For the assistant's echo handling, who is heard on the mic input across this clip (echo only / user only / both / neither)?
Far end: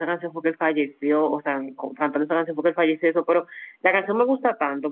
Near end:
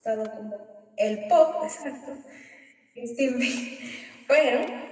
user only